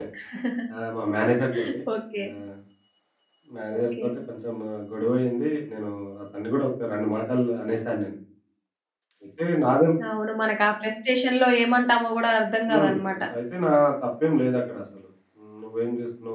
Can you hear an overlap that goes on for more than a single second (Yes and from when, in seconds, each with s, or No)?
No